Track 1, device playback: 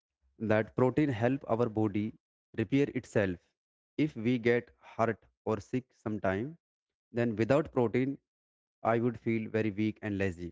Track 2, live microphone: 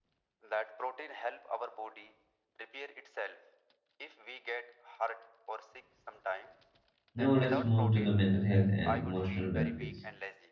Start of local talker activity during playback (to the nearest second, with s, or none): 7 s